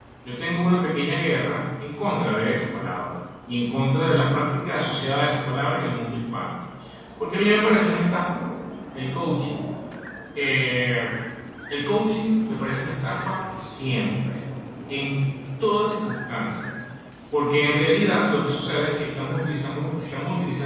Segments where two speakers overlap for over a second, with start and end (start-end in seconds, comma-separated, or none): none